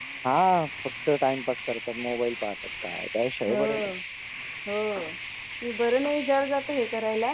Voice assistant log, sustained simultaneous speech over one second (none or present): none